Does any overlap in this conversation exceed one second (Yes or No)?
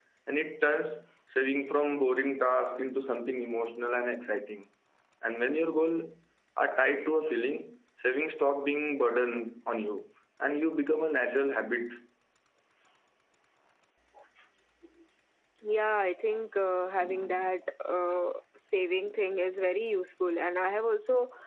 No